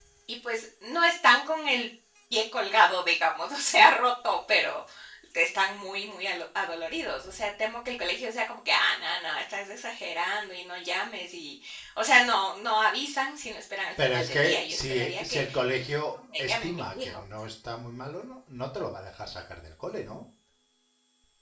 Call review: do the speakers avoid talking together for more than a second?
No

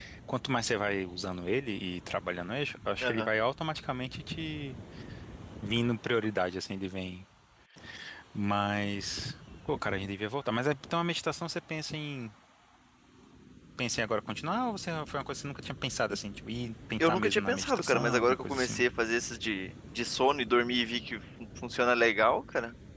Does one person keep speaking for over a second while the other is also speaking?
Yes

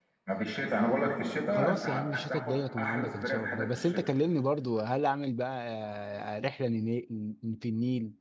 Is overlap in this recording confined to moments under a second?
No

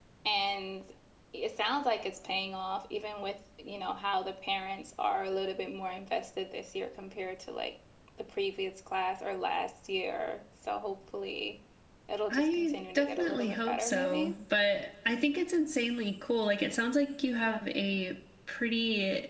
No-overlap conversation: No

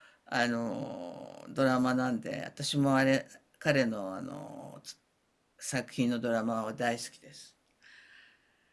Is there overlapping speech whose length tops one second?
No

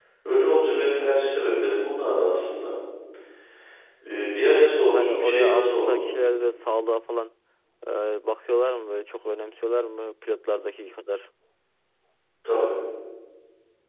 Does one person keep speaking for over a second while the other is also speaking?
Yes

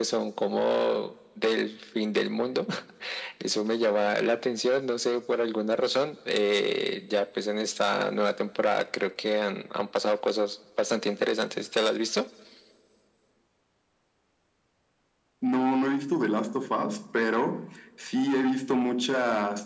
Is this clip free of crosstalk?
Yes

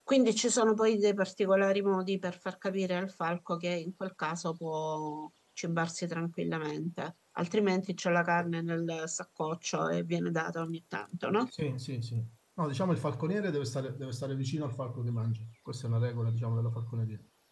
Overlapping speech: No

